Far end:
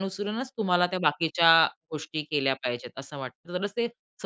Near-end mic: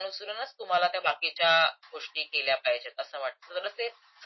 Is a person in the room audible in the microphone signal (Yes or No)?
No